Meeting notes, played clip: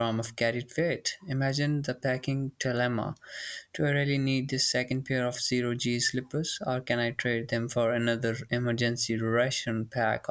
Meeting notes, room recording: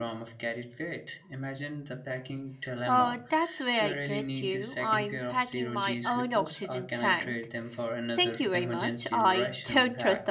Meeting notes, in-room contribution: present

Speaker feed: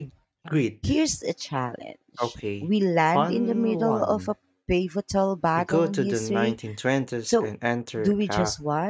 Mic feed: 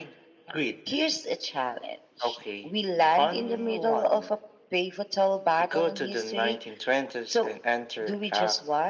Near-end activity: none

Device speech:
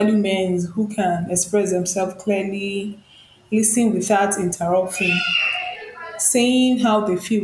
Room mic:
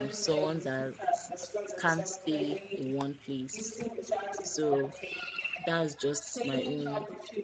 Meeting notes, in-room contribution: present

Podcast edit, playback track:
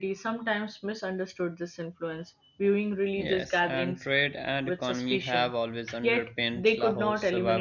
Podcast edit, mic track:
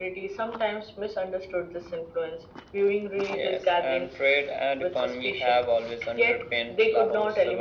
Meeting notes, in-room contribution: none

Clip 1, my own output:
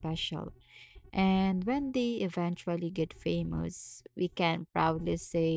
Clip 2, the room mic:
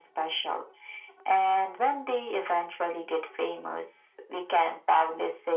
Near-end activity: none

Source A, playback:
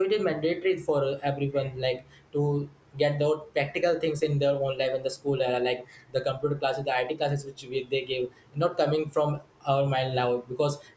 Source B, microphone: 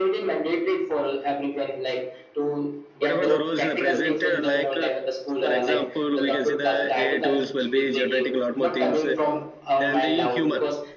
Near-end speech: present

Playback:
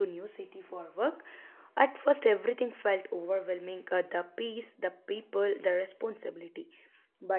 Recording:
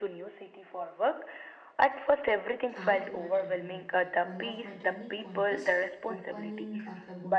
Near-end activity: present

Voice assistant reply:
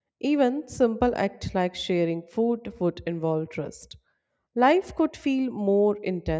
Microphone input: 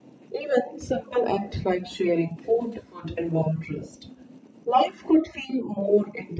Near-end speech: none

